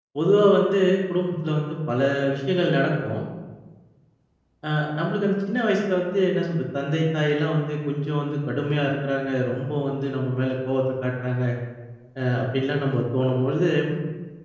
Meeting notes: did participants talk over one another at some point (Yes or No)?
No